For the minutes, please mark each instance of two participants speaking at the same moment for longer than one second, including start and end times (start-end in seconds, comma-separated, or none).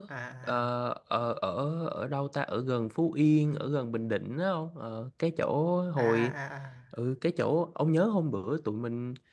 none